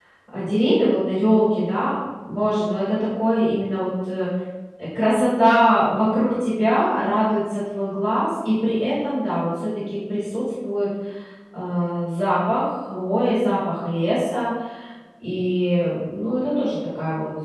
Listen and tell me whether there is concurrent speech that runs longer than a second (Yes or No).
No